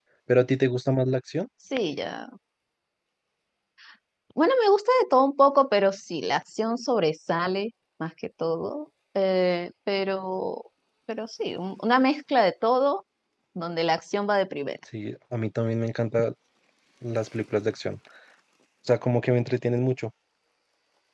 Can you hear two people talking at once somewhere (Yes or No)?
No